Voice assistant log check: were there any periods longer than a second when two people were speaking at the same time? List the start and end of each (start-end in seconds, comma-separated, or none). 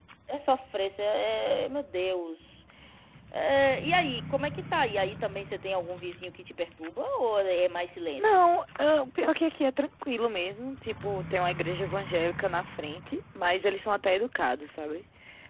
none